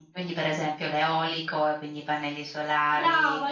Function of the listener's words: taking over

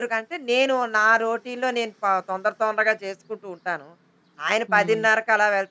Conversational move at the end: listening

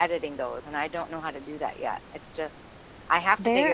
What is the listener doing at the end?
taking over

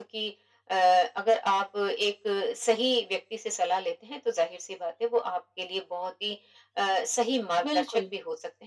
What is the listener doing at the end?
listening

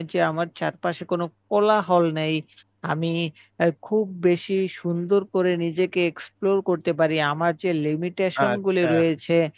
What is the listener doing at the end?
listening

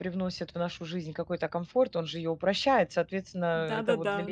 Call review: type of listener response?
taking over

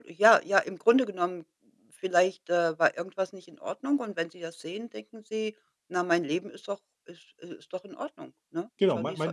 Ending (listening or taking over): taking over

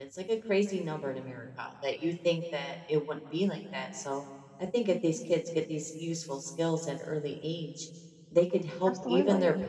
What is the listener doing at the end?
listening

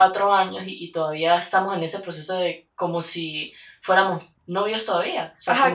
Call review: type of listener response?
taking over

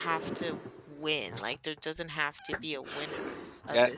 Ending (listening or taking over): taking over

